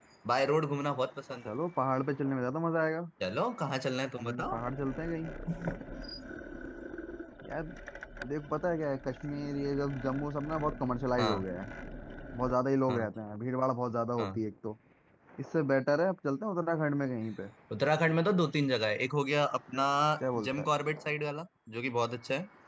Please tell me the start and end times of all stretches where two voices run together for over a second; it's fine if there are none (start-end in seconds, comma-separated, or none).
none